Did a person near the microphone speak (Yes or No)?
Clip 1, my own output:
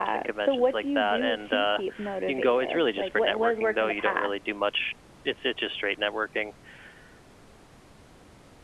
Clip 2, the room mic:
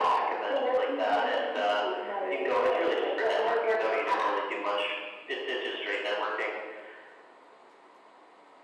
No